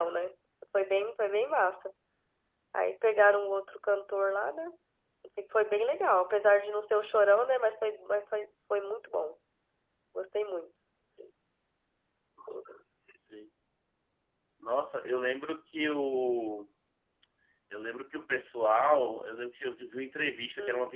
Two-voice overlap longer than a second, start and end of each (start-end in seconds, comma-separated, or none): none